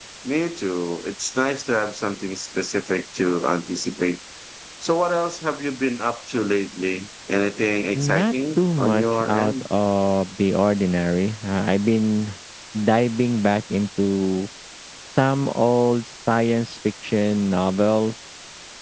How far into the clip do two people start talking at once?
8.0 s

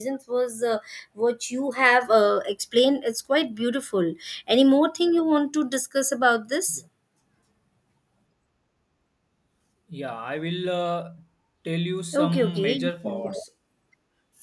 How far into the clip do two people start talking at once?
12.1 s

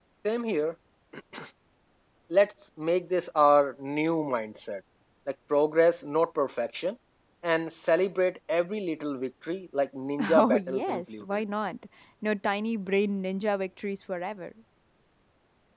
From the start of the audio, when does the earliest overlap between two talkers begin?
10.2 s

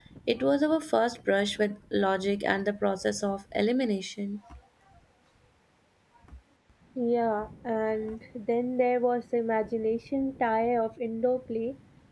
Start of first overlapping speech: none

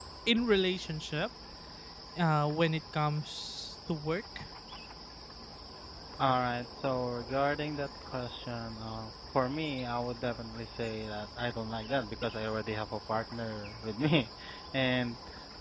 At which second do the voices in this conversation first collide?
none

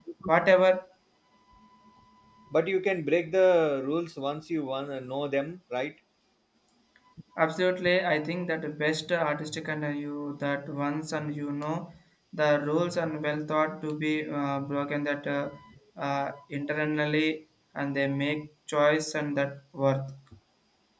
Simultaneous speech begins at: none

